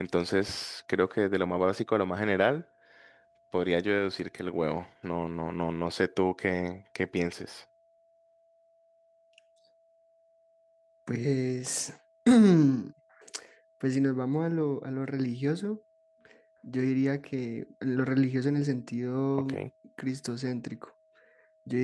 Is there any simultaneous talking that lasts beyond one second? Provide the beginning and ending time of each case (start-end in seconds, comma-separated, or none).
none